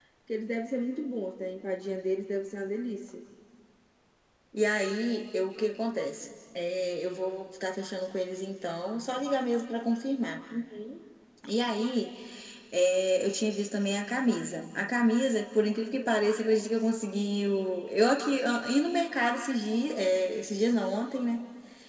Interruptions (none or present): none